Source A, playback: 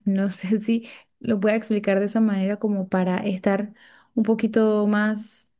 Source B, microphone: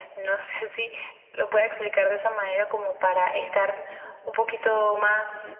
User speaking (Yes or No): Yes